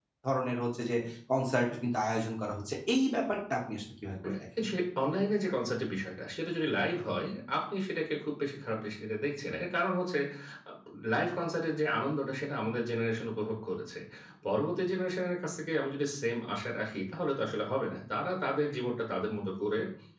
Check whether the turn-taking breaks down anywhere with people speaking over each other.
No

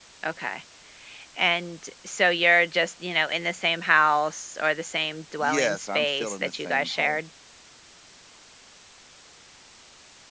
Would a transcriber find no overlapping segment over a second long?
No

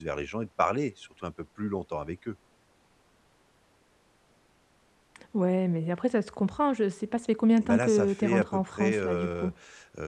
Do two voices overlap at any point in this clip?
Yes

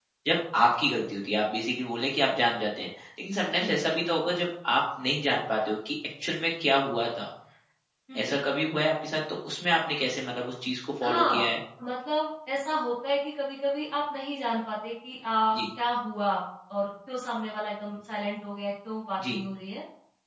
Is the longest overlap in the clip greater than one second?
No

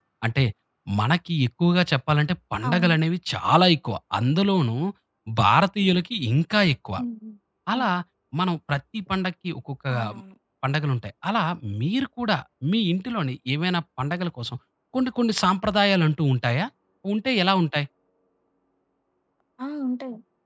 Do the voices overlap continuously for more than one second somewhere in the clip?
No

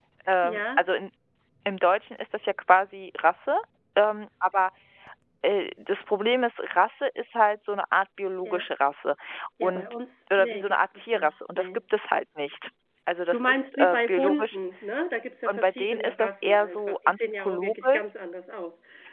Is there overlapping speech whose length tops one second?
Yes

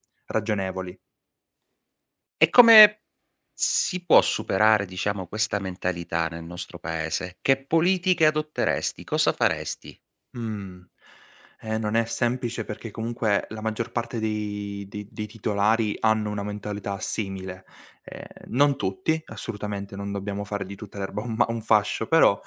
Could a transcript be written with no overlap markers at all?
Yes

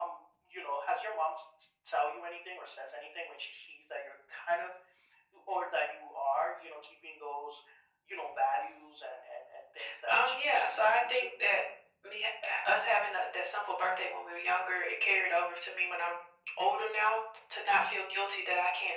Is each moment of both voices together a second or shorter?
No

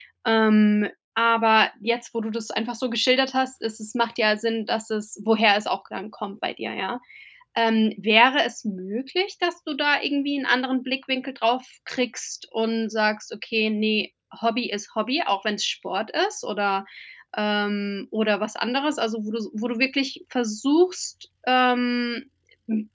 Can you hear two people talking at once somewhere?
No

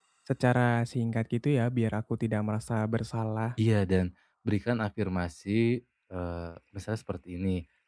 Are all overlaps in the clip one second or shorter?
Yes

